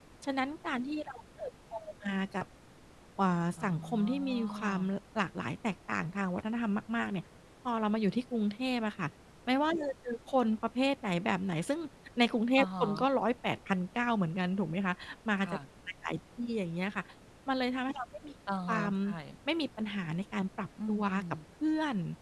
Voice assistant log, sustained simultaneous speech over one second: present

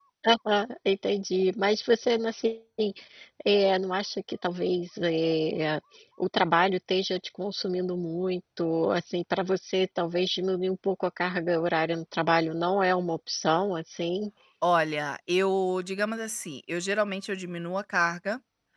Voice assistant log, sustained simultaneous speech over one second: none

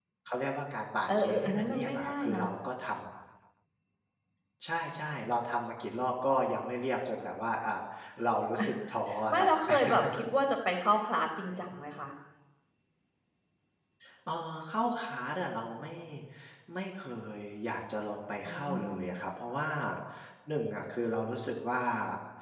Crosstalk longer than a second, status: present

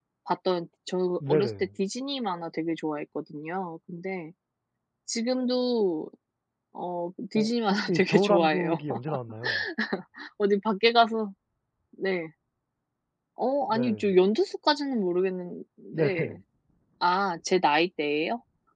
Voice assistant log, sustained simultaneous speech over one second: present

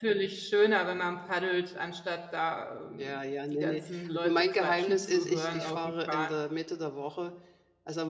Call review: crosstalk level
present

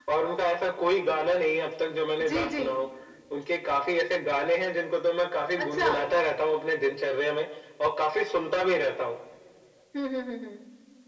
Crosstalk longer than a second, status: none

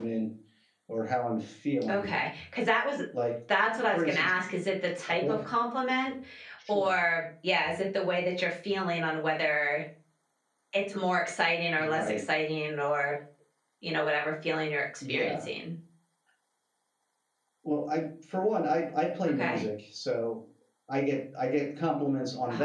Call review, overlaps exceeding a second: none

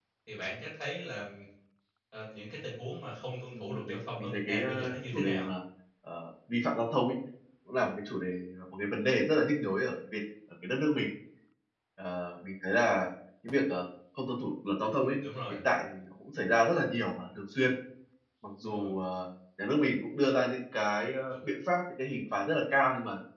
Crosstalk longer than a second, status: present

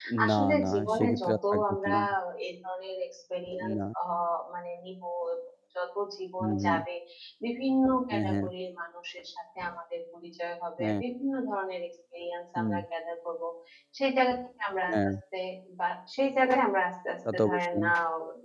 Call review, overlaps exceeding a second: present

